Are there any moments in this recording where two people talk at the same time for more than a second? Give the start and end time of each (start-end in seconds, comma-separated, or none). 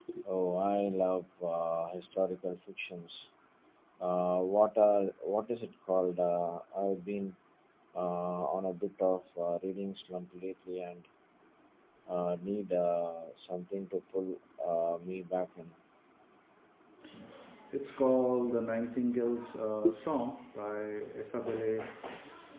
none